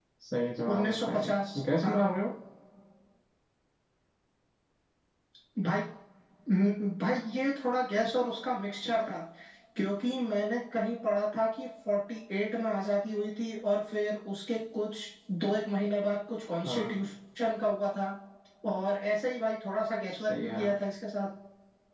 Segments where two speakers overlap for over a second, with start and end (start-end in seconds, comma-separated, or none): 0.7-2.0